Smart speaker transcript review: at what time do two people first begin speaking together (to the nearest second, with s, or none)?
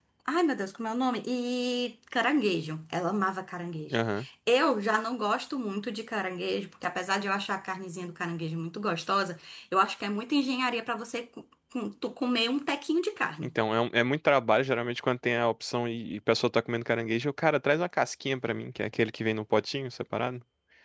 none